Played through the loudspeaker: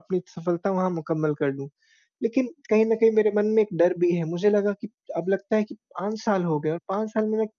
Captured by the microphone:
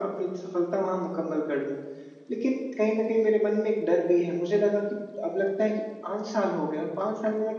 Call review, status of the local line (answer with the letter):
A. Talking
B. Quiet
B